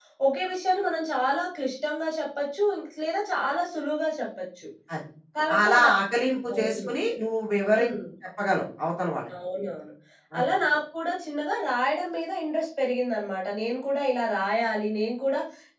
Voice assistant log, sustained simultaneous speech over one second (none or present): none